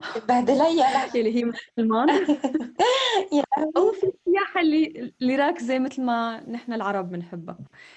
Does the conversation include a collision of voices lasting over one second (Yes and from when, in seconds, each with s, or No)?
No